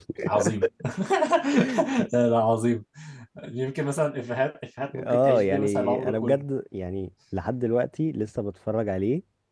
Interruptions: present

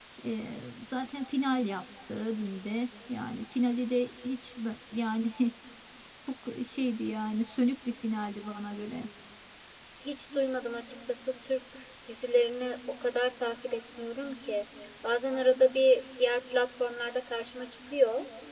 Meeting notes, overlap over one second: none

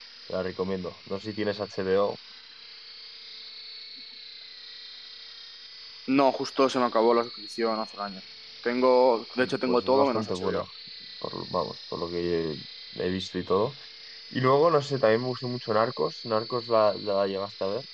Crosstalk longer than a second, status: present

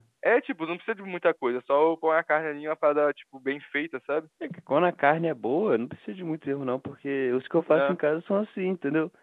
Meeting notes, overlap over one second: none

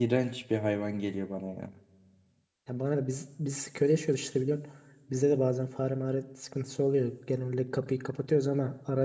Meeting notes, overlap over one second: none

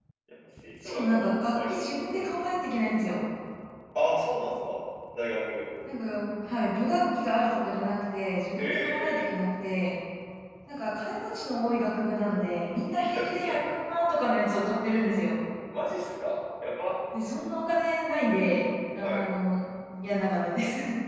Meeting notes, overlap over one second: present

